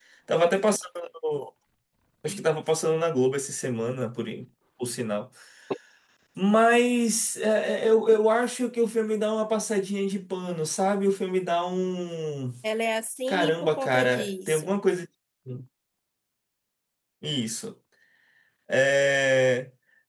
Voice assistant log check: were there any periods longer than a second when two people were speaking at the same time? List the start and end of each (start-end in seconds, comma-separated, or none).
13.3-14.7